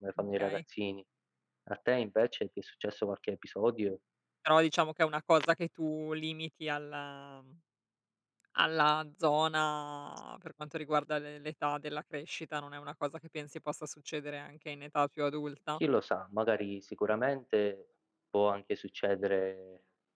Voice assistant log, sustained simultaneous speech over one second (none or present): none